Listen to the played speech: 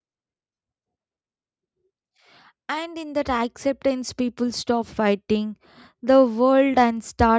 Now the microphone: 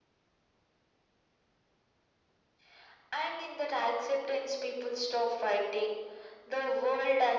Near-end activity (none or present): none